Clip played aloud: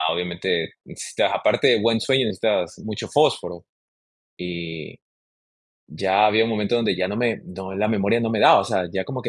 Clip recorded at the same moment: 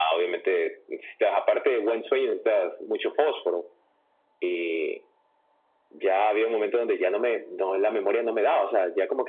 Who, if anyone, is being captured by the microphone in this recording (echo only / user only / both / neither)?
echo only